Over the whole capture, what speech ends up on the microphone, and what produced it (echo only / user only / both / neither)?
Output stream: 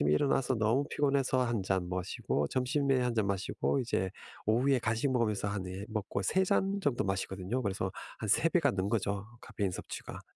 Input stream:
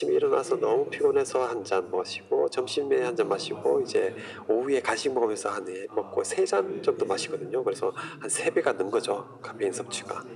both